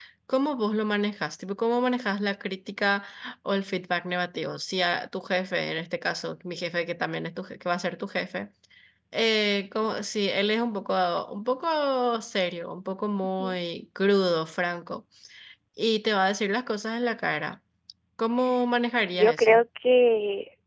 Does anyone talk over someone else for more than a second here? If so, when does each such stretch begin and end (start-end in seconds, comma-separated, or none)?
none